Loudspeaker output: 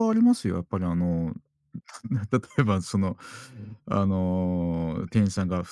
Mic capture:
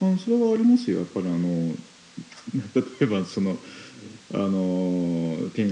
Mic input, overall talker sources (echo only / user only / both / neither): echo only